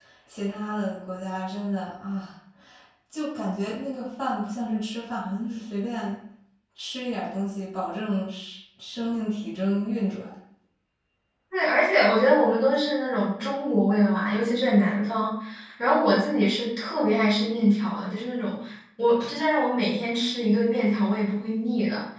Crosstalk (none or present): none